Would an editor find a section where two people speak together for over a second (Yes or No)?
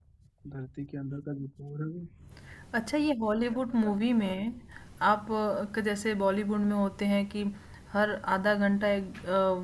No